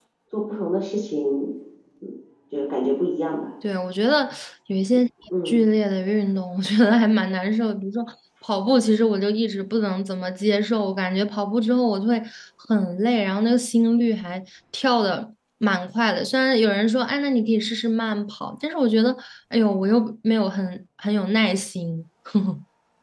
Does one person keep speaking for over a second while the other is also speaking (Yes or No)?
No